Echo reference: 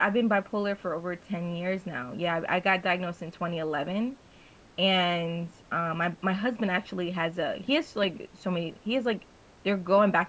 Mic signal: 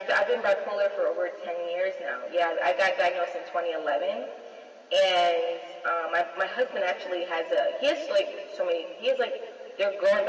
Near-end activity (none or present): none